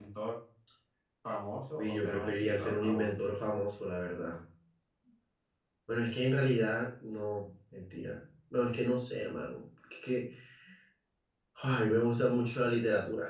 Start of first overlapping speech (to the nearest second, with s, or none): 2 s